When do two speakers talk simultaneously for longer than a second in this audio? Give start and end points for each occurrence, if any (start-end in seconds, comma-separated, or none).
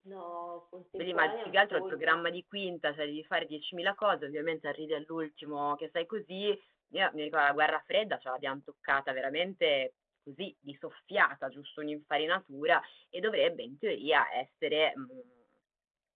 1.0-2.2